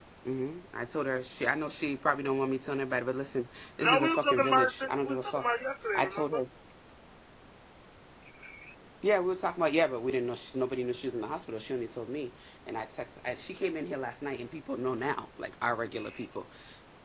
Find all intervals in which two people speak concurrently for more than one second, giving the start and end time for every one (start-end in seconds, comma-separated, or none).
3.8-5.4